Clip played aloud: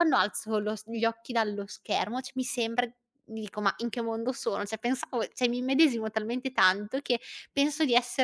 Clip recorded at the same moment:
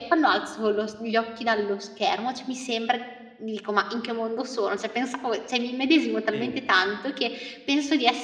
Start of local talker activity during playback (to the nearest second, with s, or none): 6 s